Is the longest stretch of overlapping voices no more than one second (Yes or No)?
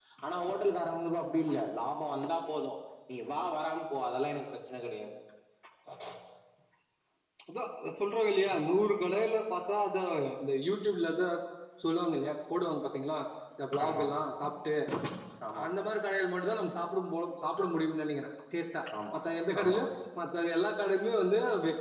Yes